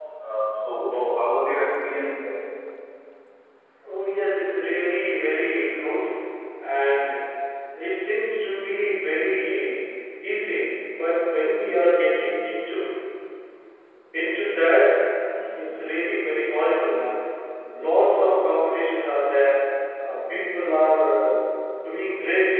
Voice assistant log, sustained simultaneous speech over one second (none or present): none